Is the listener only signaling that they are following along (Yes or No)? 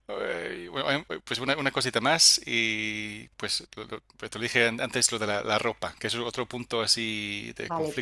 No